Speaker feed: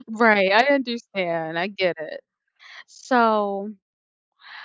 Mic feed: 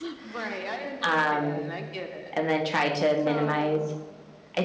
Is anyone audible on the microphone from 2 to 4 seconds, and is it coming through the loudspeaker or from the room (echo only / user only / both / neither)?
both